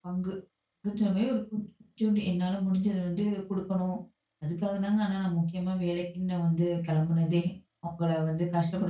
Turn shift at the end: Yes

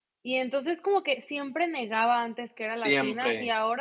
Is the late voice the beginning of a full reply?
No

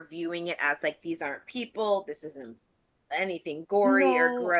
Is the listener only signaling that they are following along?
Yes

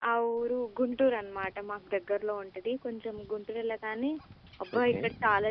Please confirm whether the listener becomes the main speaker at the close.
No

